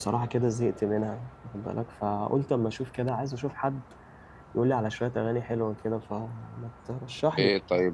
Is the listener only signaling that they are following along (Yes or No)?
No